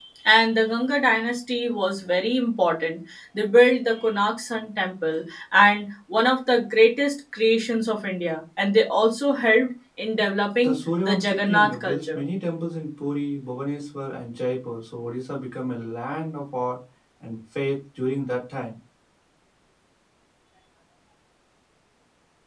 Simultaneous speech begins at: 10.6 s

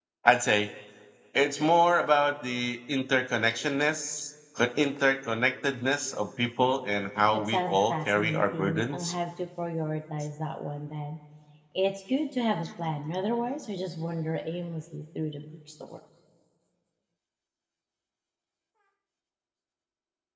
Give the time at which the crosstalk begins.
7.3 s

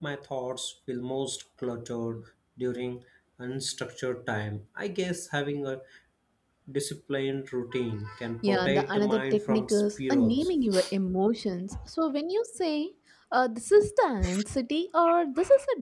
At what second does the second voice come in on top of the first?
8.4 s

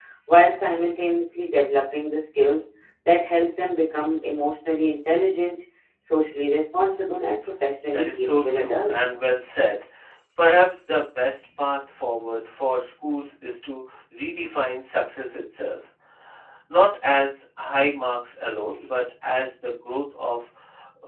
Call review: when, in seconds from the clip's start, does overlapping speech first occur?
7.9 s

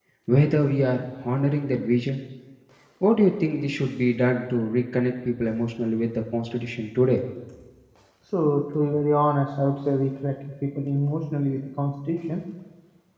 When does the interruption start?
none

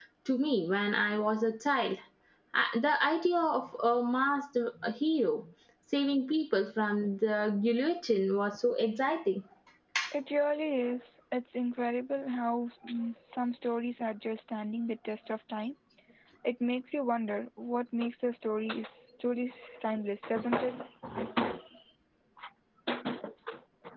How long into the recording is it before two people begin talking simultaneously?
none

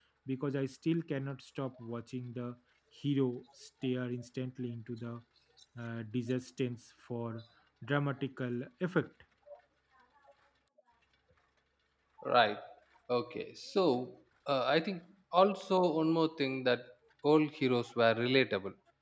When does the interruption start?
none

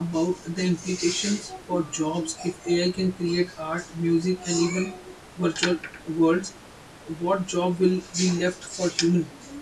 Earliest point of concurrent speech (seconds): none

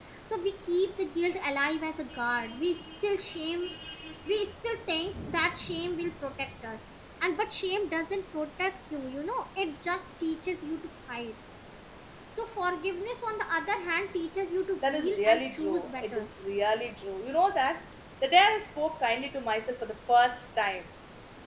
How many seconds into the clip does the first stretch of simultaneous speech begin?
14.8 s

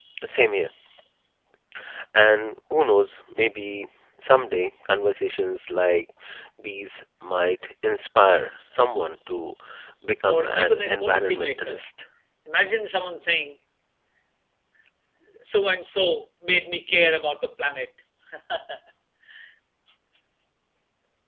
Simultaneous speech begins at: 10.2 s

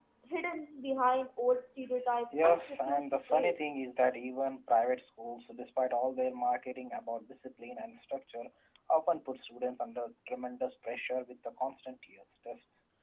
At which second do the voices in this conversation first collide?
2.3 s

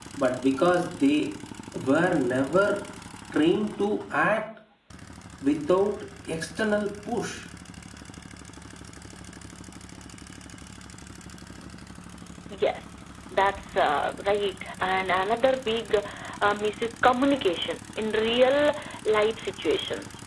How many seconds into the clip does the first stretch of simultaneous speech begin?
none

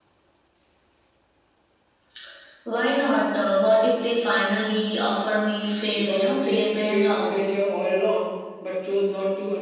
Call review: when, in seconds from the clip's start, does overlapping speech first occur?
5.9 s

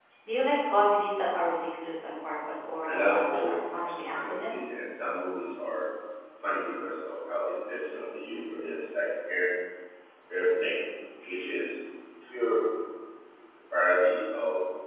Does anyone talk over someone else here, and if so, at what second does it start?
2.9 s

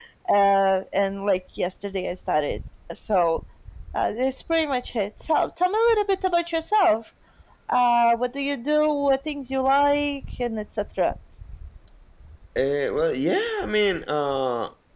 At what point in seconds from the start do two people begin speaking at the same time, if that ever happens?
none

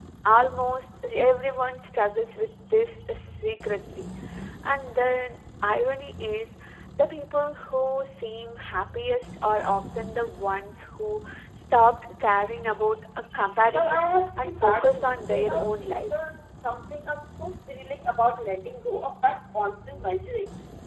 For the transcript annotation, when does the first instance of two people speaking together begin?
13.7 s

